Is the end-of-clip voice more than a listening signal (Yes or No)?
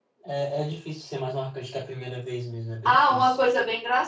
Yes